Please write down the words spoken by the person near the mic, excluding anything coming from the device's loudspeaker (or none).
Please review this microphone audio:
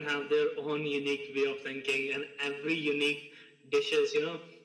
none